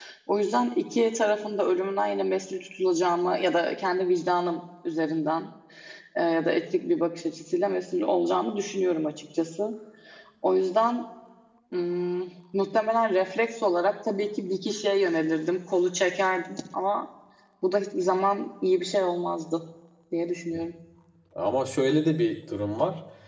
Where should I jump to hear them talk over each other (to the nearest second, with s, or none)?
none